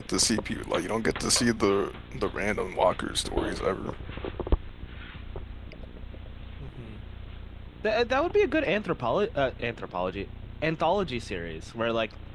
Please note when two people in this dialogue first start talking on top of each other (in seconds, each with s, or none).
none